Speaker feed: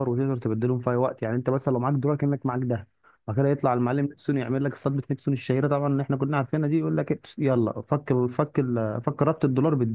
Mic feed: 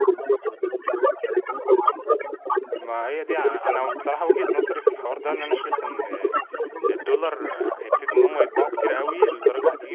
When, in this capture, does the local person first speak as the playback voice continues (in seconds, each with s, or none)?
2.8 s